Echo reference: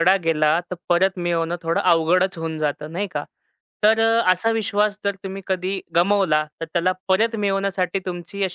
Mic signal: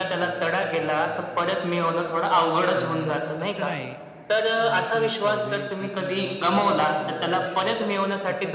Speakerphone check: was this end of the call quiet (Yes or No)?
No